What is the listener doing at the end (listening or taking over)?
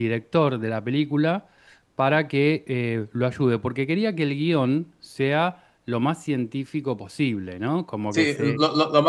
taking over